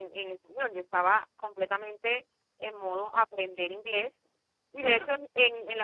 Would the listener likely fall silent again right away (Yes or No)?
Yes